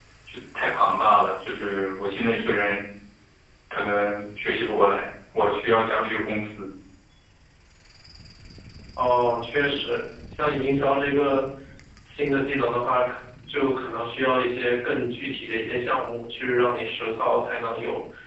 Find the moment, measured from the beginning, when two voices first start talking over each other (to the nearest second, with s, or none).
none